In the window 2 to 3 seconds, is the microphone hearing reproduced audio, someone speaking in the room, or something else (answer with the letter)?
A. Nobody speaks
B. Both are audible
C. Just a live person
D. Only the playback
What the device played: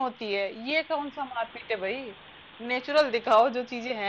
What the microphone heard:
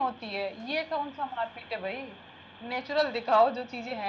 D